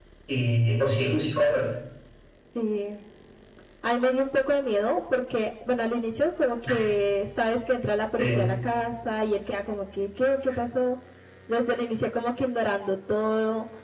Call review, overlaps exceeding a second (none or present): none